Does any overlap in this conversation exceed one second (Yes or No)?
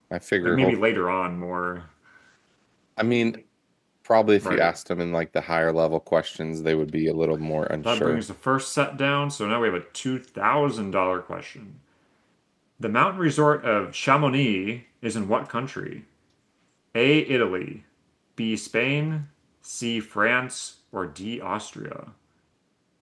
No